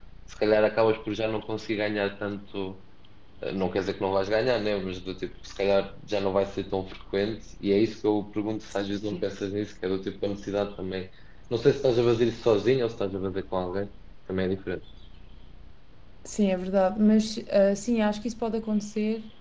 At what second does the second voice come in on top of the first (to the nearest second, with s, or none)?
none